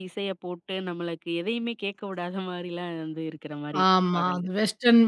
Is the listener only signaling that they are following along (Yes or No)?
No